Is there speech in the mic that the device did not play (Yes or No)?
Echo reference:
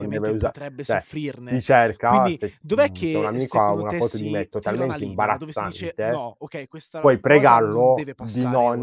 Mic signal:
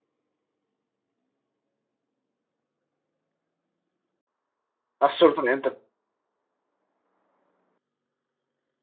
Yes